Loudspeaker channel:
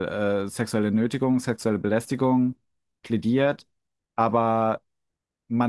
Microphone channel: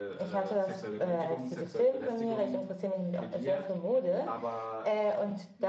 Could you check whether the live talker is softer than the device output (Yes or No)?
No